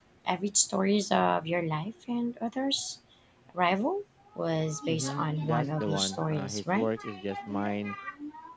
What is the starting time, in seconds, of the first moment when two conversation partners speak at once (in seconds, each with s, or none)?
4.9 s